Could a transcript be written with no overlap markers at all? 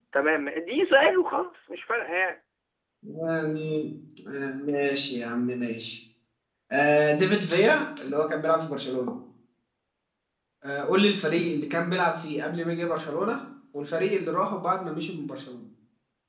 Yes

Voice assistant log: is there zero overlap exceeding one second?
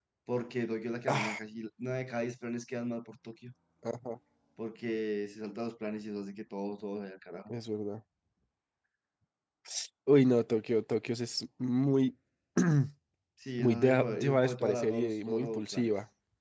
No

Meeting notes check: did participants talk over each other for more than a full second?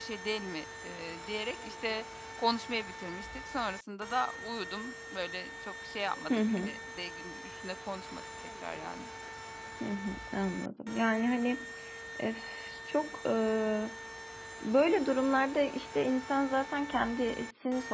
No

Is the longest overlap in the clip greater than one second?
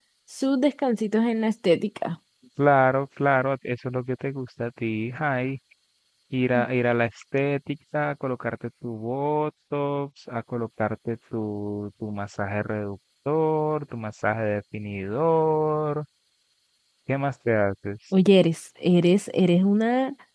No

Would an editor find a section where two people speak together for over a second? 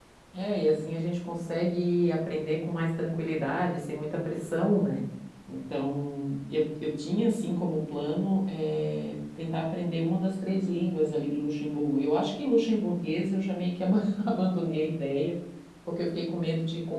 No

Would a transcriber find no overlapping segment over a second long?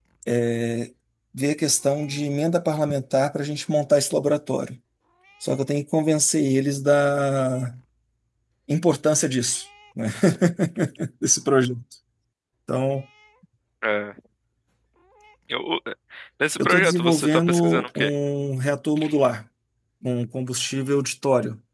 No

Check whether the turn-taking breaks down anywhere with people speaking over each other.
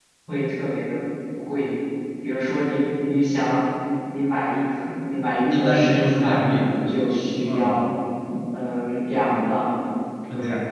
Yes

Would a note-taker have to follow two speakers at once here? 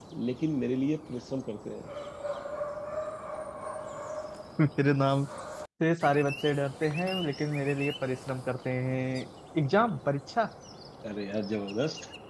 No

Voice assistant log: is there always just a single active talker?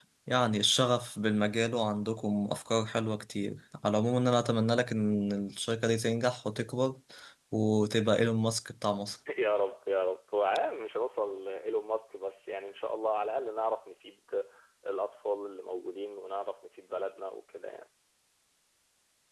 Yes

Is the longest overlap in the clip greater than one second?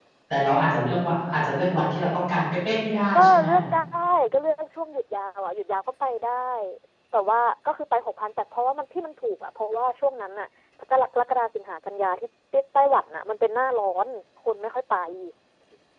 No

